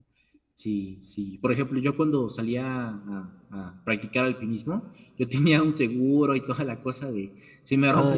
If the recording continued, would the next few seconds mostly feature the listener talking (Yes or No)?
No